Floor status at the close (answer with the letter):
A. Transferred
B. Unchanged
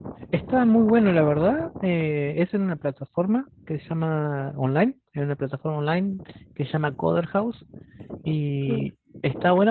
B